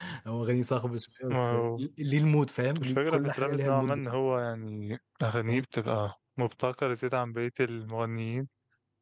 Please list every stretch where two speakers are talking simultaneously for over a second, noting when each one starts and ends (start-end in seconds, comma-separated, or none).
2.8-4.0